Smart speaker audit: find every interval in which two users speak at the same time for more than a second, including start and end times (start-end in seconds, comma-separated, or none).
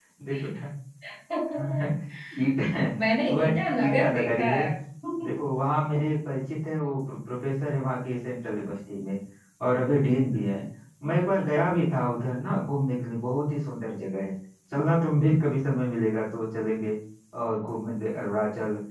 3.3-4.6